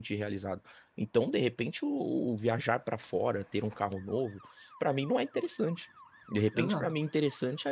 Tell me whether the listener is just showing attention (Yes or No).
Yes